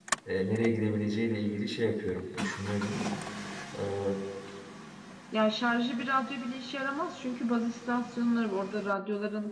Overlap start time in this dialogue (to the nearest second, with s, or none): none